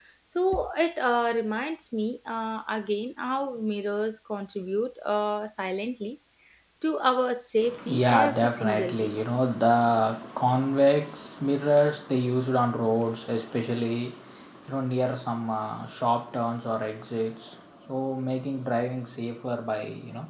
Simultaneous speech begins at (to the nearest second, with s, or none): 8 s